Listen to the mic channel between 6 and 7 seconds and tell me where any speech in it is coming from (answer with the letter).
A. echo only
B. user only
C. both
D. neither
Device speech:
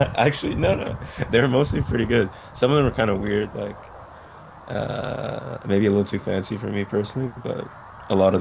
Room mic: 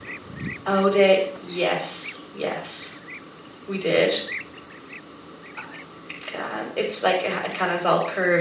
B